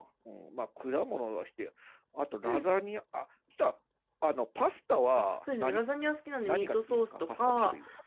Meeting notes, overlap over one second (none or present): present